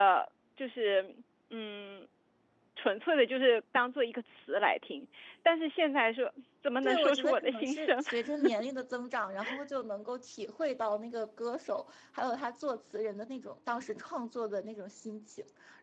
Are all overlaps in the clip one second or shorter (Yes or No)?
No